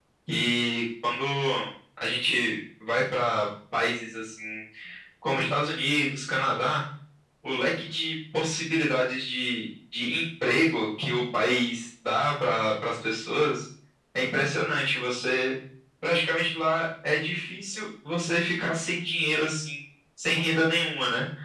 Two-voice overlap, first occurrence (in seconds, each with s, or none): none